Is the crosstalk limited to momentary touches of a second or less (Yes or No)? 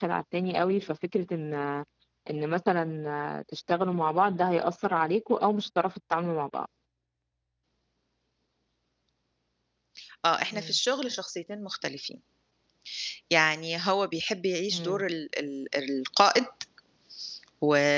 Yes